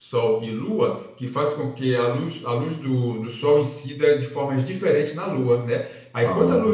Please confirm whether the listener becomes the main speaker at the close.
No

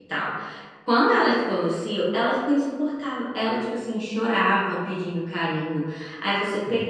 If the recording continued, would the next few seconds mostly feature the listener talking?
No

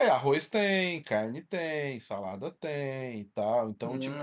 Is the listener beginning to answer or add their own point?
Yes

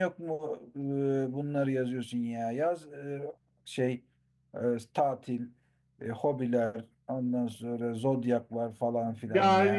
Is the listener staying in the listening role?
No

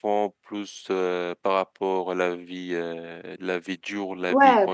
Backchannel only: No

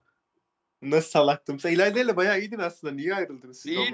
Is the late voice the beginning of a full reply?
Yes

